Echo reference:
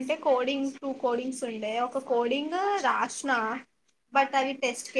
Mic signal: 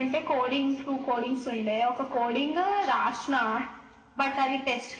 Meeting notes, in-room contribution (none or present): none